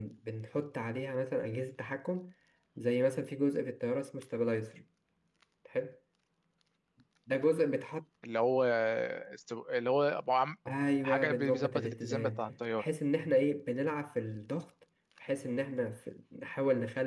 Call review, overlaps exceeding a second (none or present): present